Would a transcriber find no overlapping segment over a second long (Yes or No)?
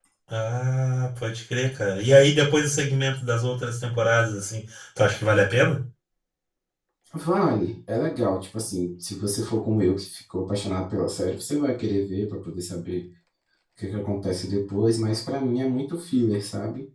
Yes